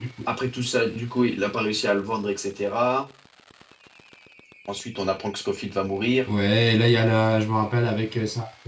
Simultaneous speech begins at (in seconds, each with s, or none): none